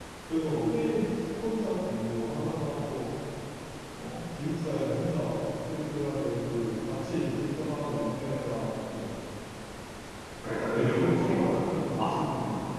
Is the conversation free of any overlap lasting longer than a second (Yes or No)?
No